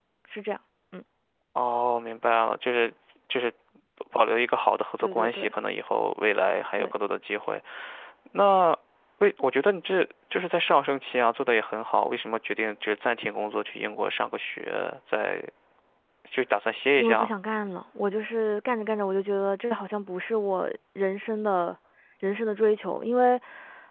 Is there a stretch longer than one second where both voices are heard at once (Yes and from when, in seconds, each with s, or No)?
No